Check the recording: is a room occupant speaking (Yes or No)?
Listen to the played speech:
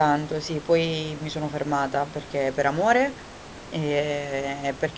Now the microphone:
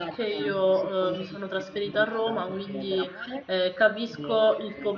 Yes